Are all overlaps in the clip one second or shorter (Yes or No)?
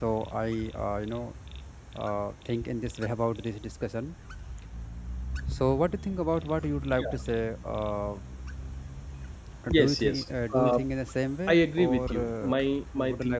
No